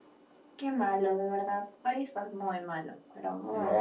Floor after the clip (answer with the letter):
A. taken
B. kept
A